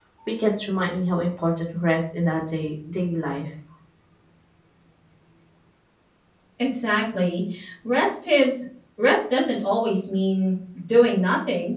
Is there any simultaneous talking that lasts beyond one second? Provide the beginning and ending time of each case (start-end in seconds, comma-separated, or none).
none